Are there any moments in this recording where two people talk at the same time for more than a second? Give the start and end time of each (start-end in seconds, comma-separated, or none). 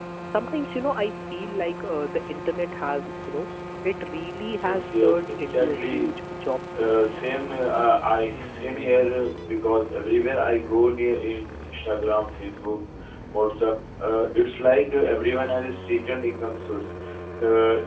4.7-6.1